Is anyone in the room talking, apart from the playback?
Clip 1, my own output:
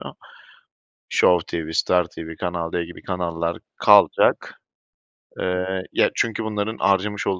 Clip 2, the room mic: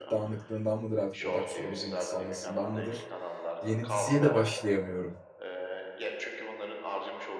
Yes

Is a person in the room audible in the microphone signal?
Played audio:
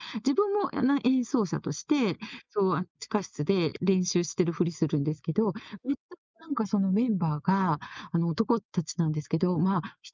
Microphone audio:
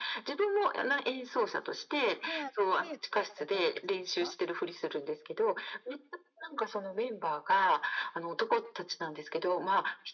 Yes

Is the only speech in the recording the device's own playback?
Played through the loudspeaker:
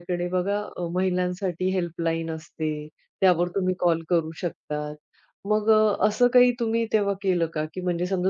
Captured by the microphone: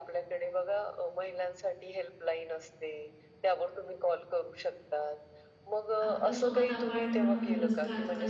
No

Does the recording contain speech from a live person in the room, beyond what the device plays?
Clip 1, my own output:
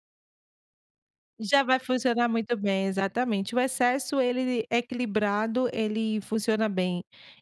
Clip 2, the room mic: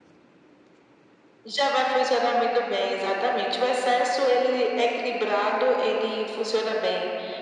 No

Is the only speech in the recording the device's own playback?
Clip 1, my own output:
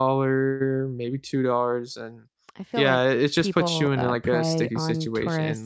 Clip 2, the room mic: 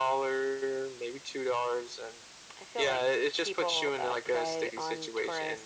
Yes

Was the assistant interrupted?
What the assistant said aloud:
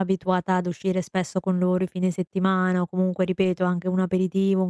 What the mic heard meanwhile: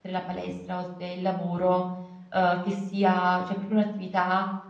Yes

